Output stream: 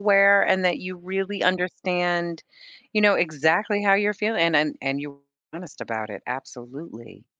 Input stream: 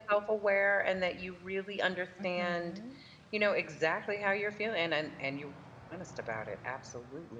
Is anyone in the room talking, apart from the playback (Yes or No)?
Yes